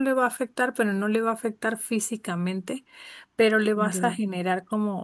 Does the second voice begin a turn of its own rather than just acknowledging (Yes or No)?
No